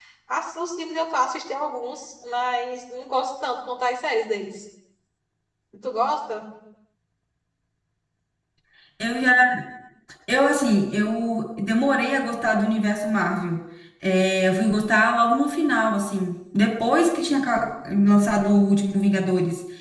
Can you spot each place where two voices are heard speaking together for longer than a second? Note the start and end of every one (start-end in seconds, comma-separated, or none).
none